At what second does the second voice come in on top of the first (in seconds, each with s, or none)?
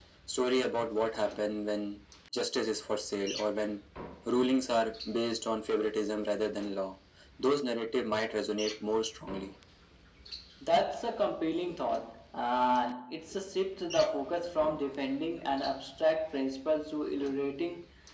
none